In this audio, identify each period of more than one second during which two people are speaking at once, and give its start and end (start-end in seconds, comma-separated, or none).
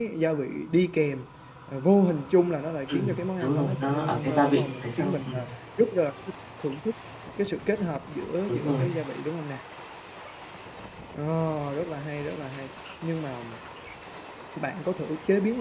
2.9-5.4